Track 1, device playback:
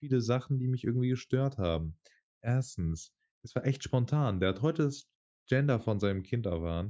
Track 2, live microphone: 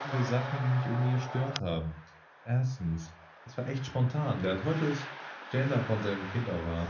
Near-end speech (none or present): none